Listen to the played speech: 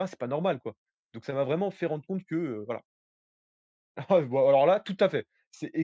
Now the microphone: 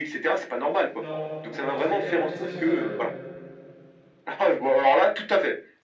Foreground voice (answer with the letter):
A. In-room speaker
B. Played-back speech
B